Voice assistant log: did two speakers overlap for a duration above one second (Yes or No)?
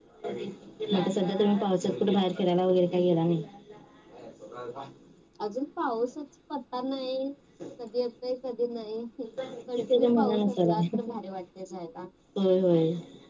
Yes